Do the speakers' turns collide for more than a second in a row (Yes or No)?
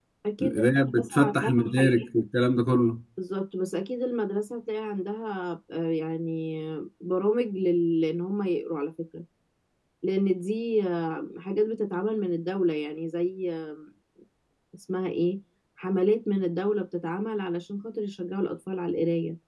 Yes